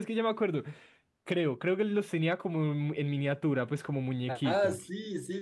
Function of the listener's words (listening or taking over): taking over